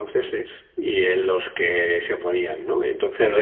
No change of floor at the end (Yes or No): No